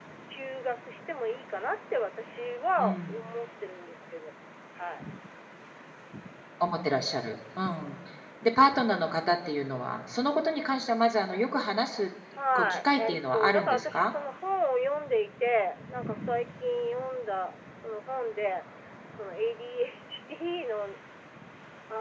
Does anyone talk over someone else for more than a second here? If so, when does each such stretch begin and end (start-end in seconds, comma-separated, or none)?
12.6-14.1